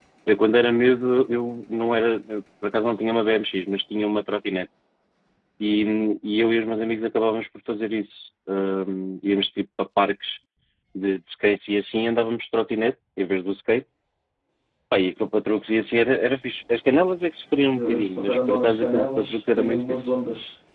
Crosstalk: present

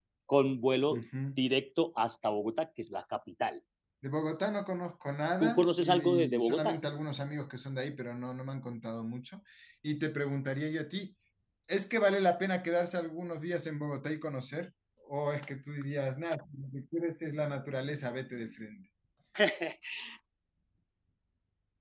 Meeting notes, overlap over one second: present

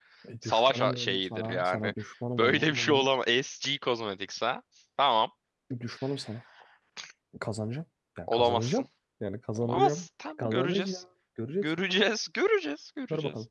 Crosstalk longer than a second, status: present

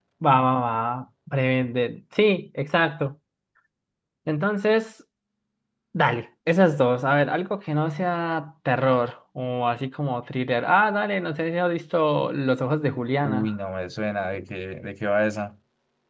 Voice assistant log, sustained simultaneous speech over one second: none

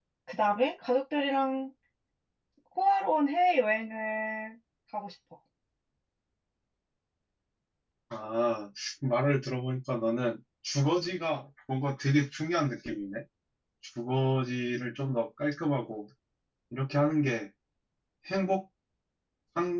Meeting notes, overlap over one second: none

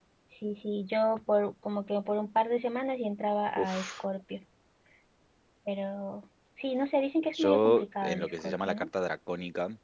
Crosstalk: present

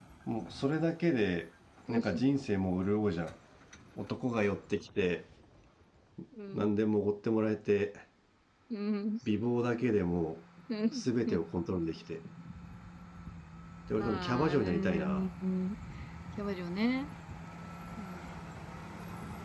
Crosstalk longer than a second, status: present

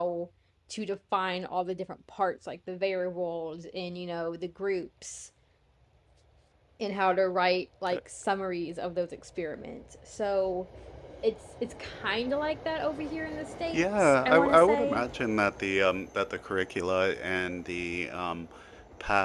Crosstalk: present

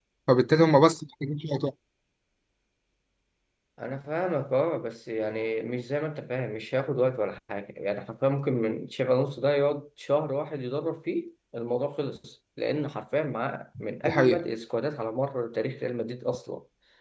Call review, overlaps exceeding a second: none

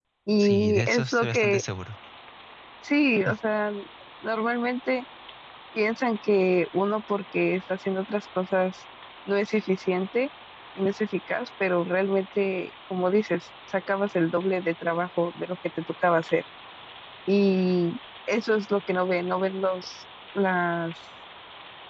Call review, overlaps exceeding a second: present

